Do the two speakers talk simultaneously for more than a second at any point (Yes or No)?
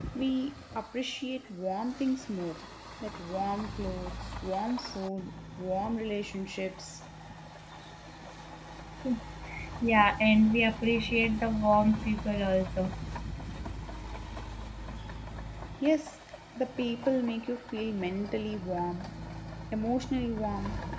No